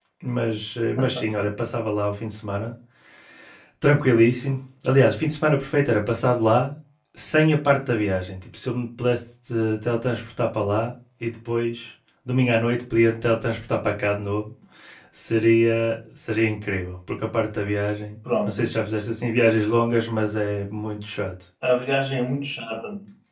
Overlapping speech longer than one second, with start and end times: none

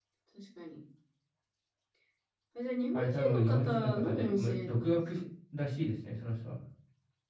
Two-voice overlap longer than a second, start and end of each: 2.9-5.0

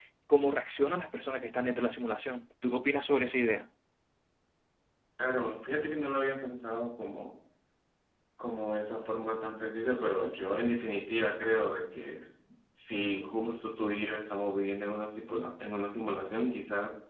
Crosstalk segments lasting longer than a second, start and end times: none

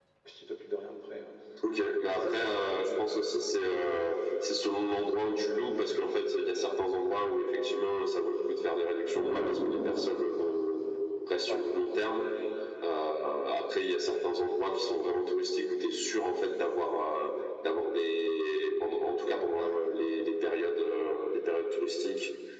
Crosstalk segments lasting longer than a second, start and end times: none

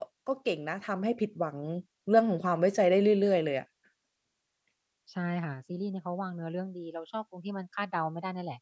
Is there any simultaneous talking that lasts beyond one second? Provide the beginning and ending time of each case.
none

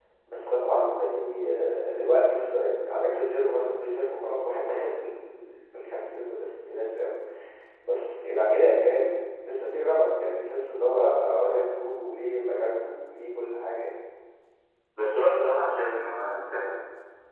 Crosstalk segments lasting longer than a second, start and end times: none

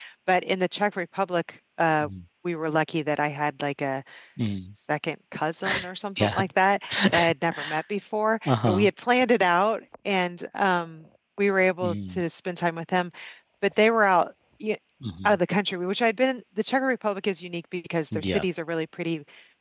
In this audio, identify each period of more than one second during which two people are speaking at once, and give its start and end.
none

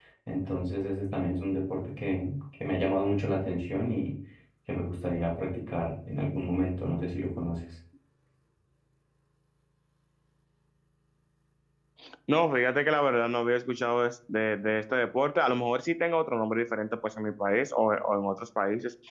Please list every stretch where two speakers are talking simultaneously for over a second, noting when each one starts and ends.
none

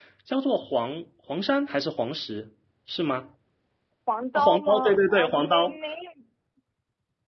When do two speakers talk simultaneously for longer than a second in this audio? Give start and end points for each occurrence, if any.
4.3-5.8

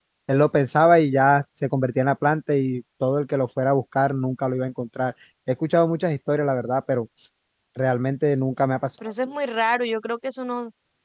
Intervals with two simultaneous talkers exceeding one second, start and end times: none

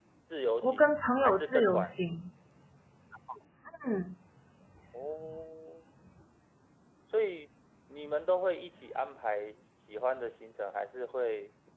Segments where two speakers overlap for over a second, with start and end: 0.6-1.9

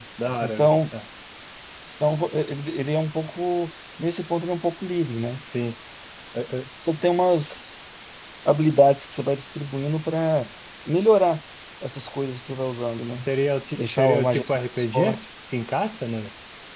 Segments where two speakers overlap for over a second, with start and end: 13.8-15.2

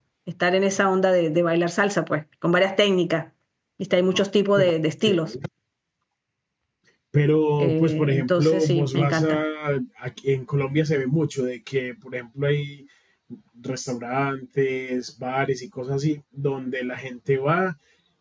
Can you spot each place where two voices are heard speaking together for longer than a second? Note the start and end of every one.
7.6-9.4

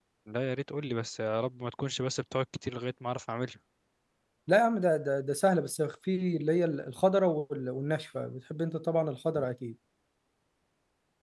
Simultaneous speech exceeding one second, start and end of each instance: none

